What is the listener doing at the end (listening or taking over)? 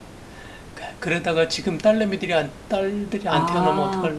taking over